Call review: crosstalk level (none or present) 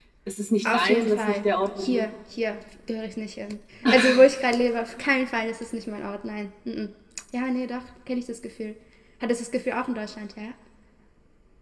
present